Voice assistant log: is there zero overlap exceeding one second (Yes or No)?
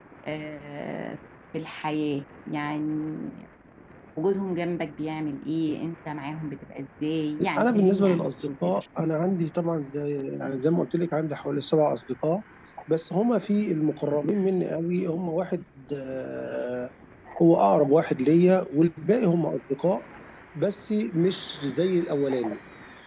No